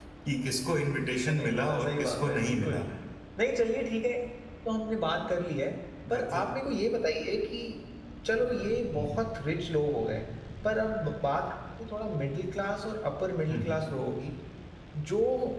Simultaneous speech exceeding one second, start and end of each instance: 1.3-2.8

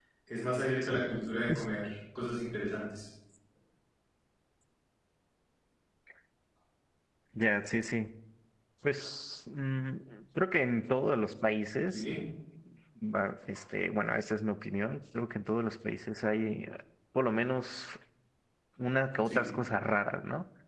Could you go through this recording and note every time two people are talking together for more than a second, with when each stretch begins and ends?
none

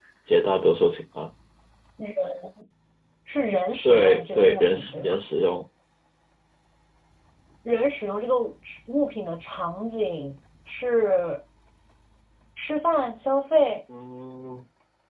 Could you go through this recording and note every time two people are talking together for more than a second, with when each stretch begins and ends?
3.8-5.2

